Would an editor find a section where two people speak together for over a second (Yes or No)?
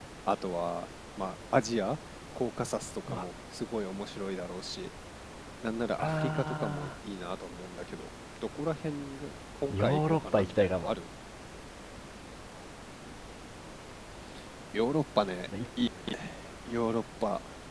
Yes